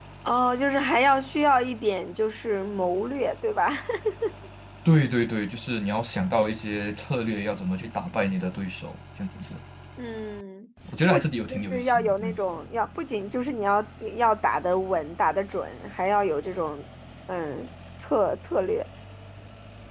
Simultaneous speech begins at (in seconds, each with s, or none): 10.9 s